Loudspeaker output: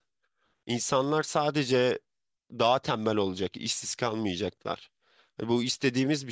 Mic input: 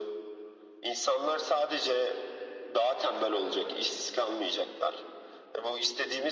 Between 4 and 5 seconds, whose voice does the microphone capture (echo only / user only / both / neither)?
echo only